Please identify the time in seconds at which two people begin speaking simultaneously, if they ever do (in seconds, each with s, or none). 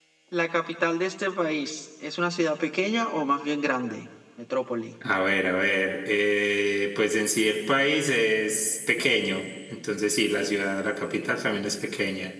none